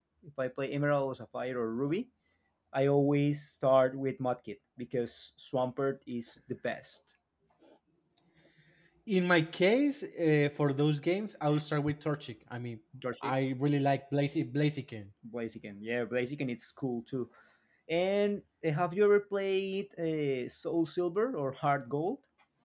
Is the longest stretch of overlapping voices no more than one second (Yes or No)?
Yes